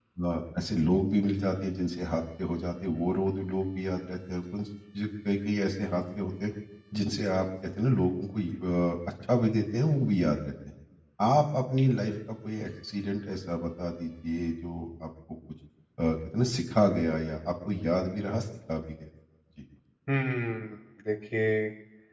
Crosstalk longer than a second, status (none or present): none